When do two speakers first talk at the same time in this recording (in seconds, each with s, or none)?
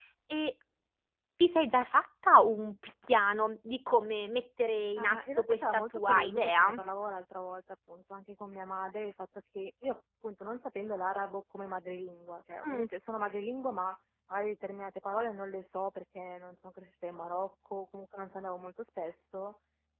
5.0 s